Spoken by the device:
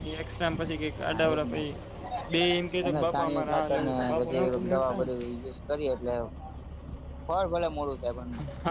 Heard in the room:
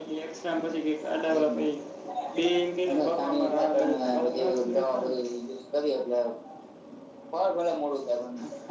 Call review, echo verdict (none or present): present